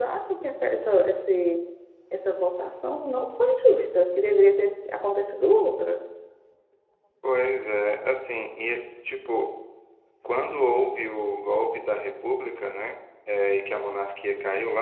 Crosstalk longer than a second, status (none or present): none